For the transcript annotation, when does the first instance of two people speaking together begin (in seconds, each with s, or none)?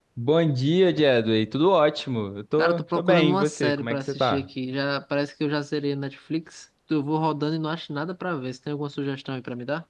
2.6 s